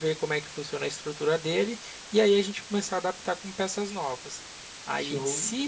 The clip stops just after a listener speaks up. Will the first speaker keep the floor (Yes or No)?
Yes